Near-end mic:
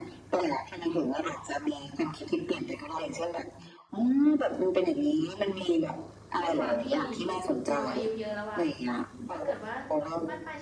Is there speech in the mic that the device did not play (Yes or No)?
Yes